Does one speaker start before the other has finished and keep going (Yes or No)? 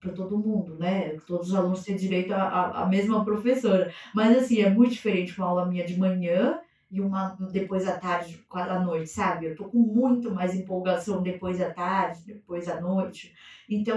No